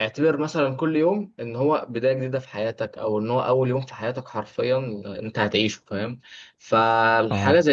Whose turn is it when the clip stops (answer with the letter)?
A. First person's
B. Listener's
A